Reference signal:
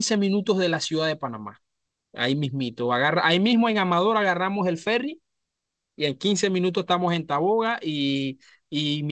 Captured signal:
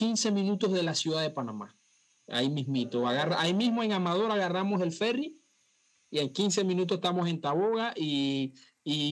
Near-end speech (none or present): present